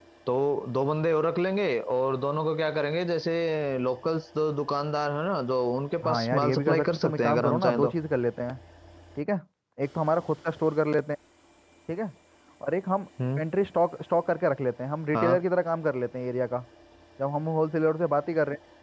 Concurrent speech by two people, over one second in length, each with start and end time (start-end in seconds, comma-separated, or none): 6.0-7.9